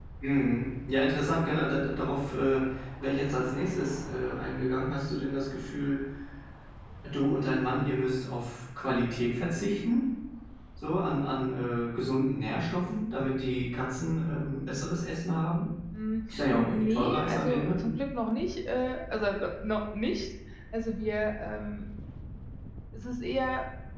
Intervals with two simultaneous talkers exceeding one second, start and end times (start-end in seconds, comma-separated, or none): 16.3-17.7